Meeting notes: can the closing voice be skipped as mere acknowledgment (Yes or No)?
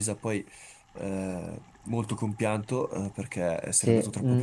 Yes